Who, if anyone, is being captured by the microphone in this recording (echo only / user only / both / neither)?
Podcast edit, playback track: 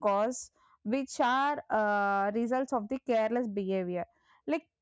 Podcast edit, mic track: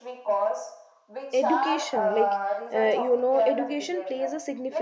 both